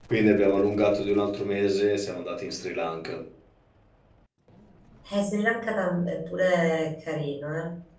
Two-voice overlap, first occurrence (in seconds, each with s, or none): none